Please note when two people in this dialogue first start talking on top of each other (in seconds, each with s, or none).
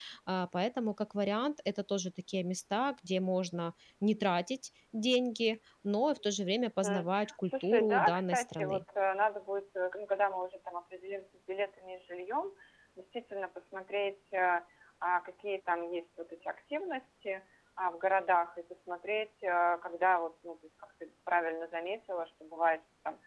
6.8 s